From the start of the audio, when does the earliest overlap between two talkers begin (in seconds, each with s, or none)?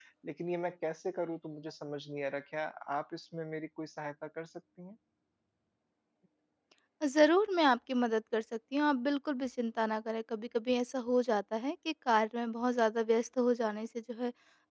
none